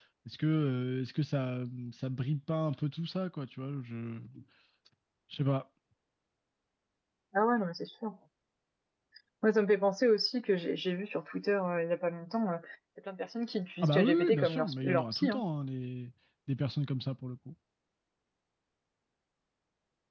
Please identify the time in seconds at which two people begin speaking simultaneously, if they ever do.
13.8 s

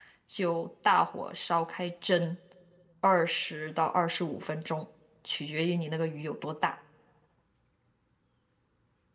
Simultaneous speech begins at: none

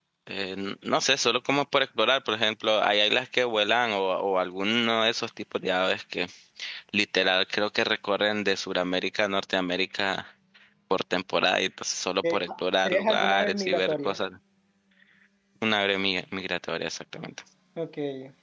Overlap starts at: 12.2 s

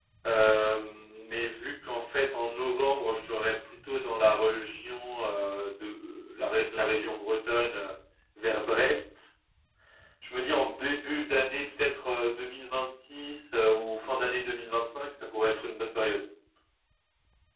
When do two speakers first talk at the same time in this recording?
none

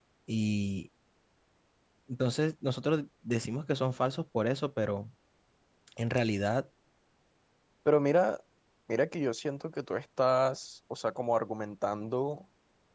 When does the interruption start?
none

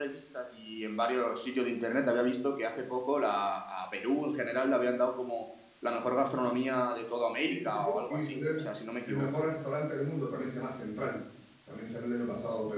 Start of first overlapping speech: 7.4 s

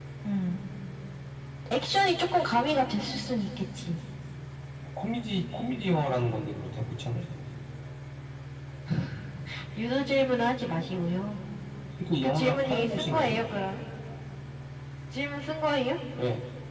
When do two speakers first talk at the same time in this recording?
12.2 s

